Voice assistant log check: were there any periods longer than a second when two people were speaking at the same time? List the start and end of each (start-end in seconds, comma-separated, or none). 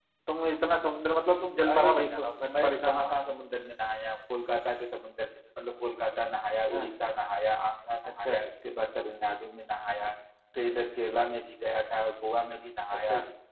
1.7-3.4